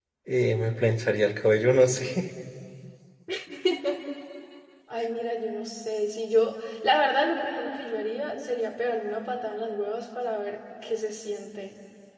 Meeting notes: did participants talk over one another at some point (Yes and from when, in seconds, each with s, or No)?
No